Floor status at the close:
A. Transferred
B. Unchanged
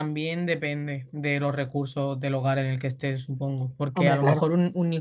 B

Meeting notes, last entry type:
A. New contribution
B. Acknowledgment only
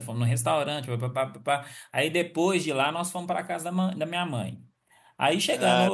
B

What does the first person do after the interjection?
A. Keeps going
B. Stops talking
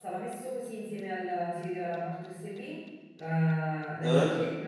A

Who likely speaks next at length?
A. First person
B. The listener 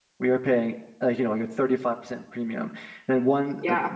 A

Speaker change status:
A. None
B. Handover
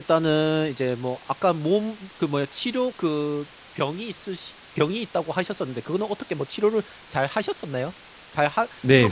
B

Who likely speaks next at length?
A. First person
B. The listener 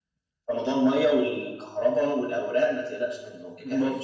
B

